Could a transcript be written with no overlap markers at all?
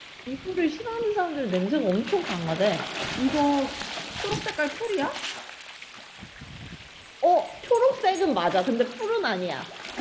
Yes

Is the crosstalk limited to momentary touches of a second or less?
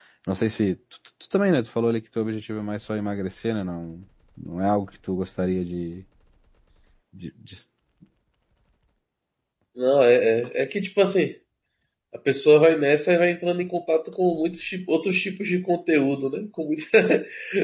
Yes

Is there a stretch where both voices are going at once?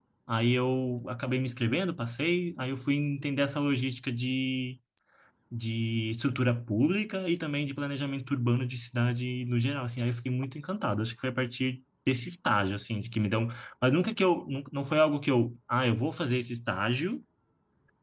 No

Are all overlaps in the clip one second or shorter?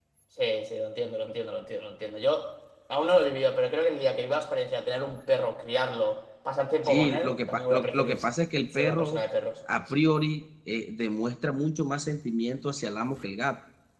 No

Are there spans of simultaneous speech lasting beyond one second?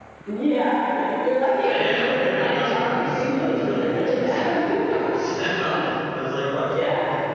Yes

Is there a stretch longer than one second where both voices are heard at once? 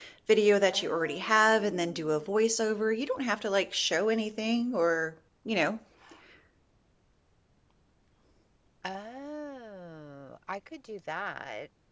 Yes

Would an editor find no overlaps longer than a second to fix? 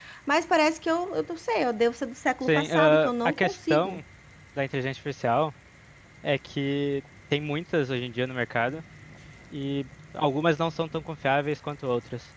No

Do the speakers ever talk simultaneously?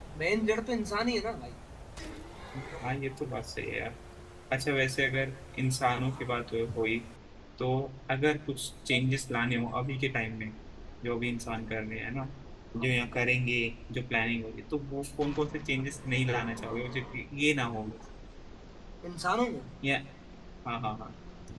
No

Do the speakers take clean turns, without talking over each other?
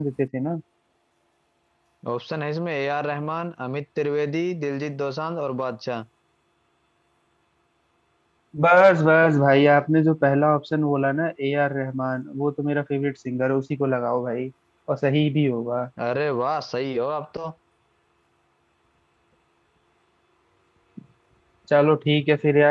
Yes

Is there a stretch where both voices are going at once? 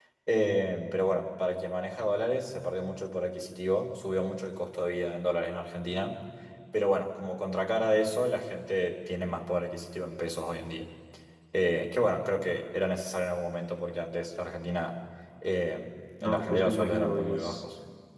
Yes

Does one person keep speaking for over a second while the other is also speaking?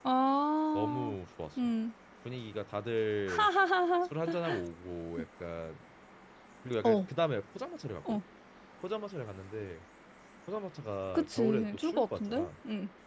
Yes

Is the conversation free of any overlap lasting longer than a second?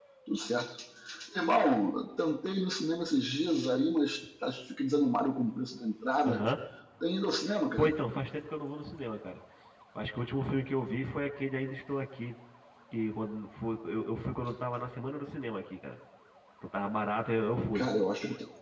Yes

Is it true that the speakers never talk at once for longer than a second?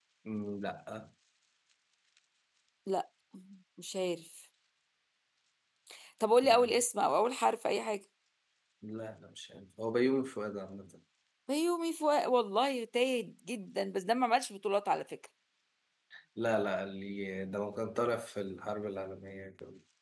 Yes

